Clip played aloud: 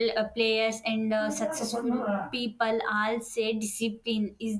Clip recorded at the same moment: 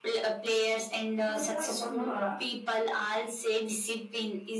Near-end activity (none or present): none